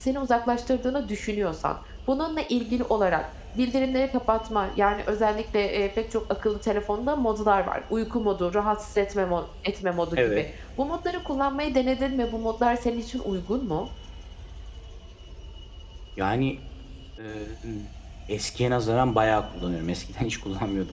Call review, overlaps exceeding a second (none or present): none